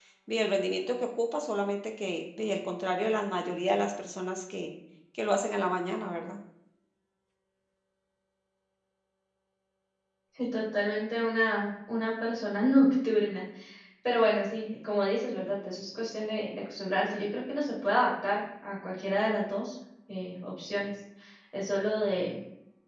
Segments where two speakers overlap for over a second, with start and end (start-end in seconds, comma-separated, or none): none